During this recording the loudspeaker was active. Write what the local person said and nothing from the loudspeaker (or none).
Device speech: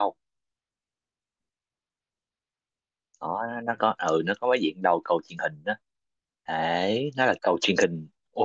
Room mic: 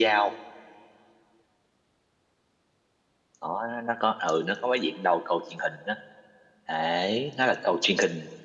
none